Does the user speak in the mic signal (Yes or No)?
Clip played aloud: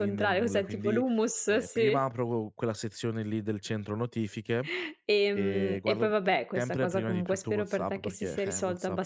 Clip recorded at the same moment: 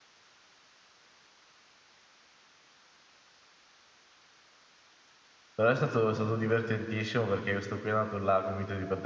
Yes